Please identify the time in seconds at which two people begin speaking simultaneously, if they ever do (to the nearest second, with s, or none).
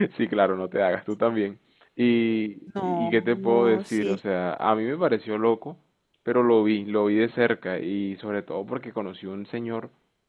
3 s